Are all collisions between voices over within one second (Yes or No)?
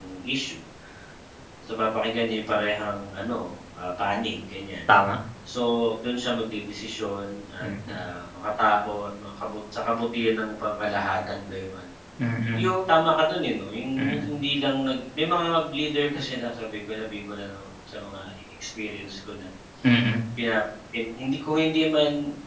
Yes